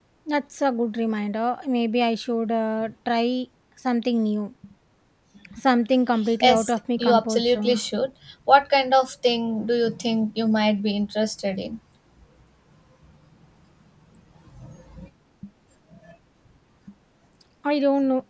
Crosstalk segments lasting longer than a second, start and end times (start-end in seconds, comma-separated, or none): 6.4-7.8